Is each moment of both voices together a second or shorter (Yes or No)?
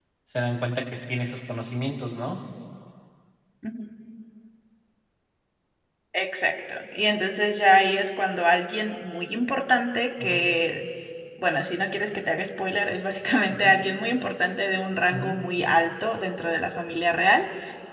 Yes